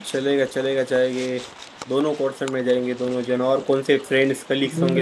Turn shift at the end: Yes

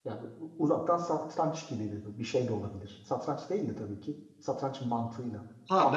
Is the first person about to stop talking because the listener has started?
Yes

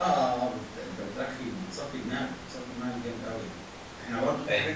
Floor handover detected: No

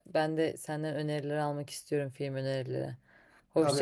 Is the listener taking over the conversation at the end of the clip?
Yes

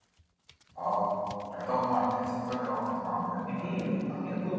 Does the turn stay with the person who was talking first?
No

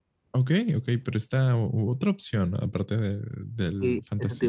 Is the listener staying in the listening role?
No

